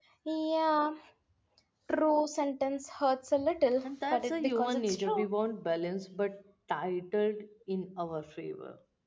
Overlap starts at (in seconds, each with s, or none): 3.8 s